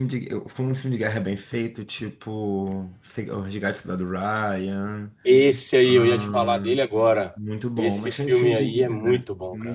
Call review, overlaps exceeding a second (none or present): present